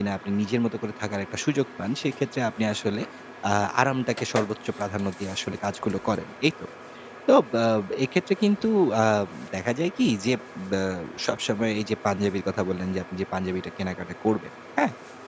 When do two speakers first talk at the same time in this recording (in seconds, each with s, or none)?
none